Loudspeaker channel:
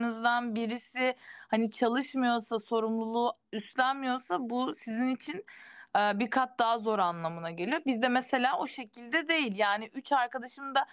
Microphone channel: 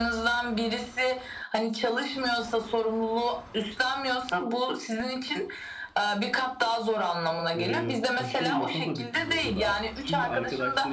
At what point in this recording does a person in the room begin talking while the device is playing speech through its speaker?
7.6 s

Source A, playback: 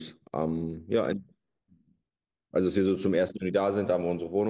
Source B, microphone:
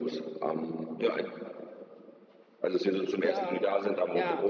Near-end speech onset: 3.2 s

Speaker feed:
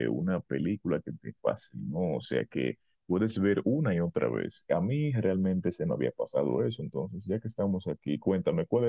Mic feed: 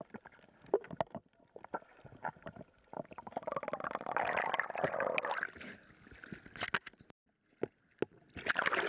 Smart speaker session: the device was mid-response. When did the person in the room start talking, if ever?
none

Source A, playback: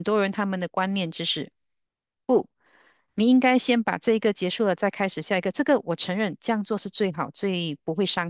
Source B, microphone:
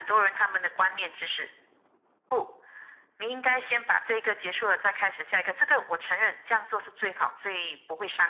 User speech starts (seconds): none

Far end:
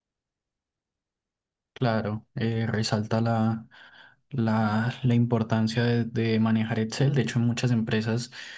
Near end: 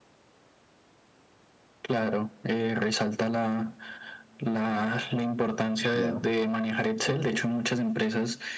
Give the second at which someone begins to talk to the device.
5.9 s

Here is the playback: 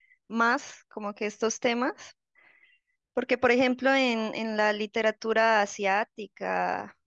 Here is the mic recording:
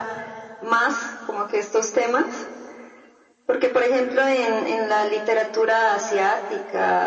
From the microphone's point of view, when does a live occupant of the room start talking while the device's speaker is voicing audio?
none

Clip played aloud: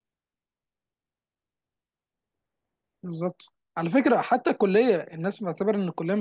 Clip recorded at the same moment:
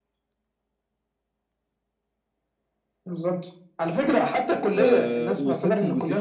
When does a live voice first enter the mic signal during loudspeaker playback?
4.8 s

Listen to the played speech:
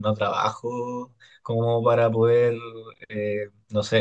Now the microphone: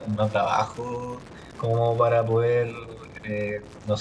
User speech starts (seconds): none

